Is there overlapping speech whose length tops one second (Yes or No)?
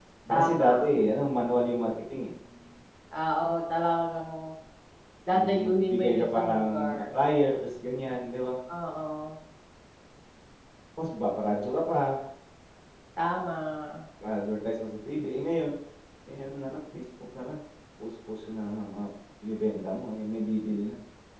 Yes